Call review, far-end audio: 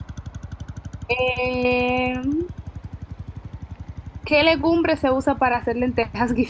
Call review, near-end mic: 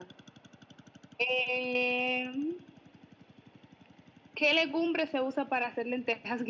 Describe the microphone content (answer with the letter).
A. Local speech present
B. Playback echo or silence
B